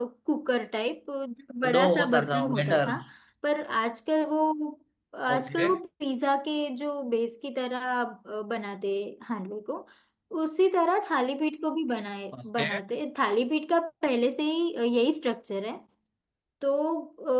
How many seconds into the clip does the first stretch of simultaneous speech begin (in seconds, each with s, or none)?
1.8 s